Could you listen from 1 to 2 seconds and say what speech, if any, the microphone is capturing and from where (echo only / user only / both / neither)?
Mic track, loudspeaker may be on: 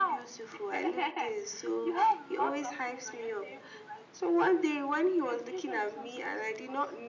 echo only